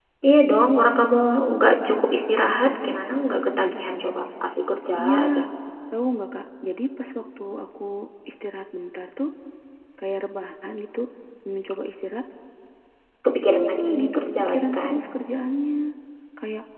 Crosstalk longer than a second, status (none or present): present